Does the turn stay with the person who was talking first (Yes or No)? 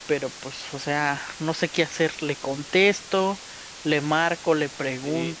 No